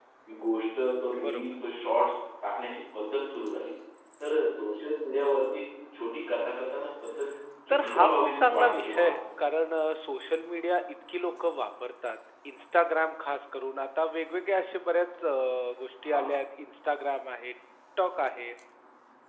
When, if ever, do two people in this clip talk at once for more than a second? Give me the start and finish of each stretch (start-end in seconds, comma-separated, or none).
7.7-9.1